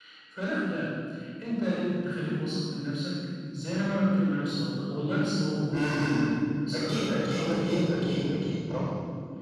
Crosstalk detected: Yes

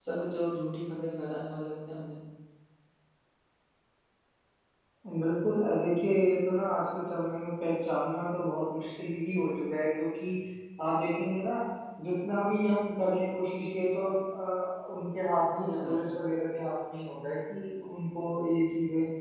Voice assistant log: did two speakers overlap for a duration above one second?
No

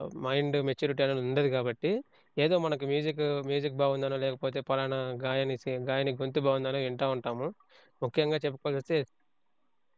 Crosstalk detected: No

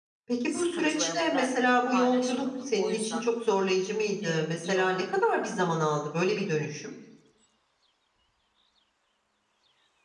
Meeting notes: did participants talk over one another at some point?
Yes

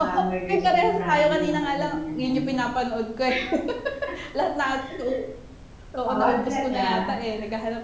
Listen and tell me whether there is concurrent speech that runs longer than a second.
Yes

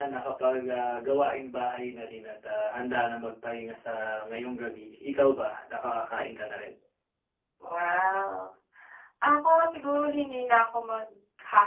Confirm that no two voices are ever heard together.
Yes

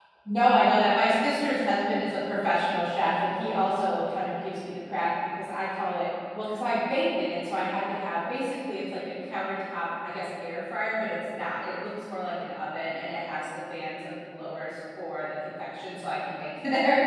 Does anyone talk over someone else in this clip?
No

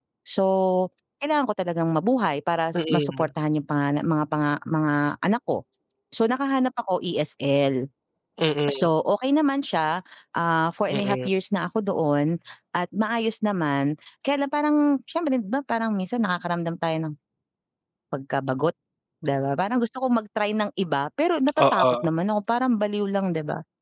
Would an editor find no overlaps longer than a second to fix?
Yes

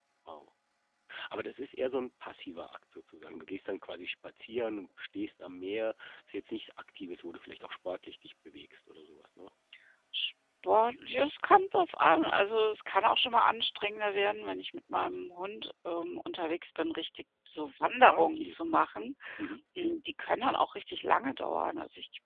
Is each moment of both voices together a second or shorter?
Yes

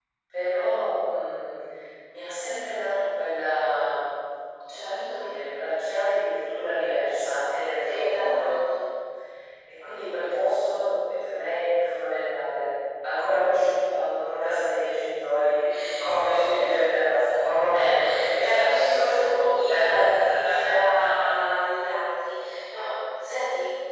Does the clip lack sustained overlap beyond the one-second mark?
No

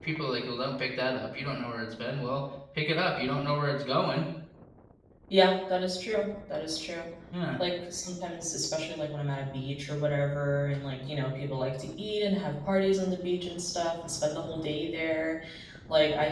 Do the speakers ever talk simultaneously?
No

